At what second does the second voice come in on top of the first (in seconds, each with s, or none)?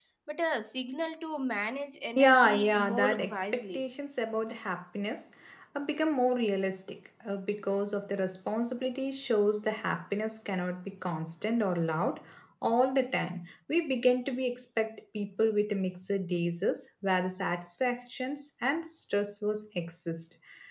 2.2 s